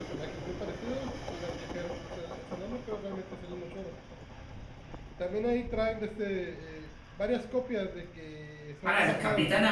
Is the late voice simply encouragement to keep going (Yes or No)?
No